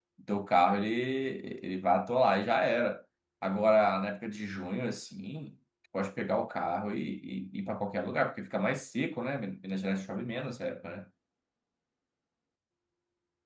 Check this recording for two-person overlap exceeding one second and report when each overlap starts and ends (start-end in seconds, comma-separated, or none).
none